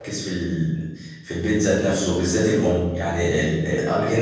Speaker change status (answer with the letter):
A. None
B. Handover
A